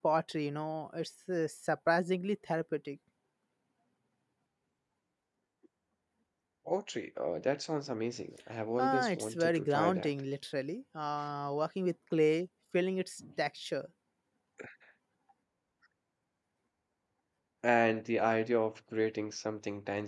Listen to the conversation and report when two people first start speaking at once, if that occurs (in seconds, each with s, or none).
8.8 s